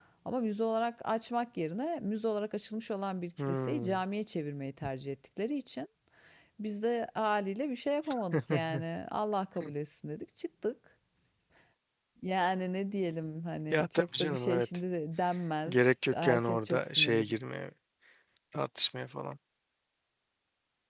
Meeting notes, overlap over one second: present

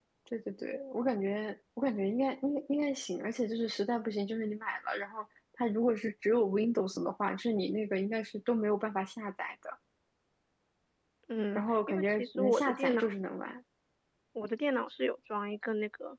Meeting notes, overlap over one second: present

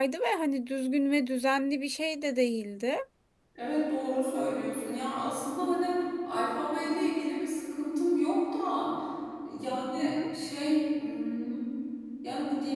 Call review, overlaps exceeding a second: none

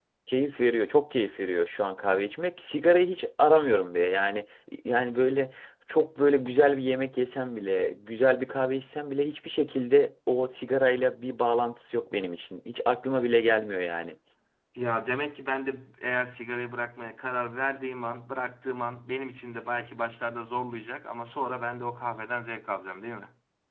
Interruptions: none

